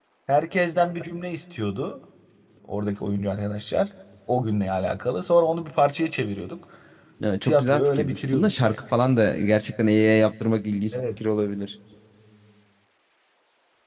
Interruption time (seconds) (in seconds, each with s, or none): 7.4 s